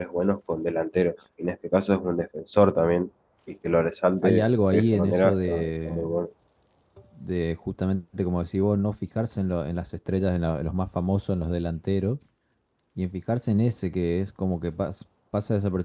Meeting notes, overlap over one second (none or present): present